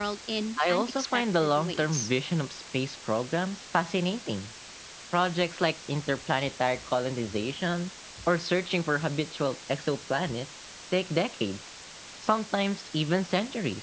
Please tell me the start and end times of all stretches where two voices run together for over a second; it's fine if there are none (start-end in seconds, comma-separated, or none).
0.7-2.1